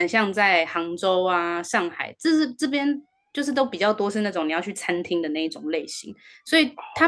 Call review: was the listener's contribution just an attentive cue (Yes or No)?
Yes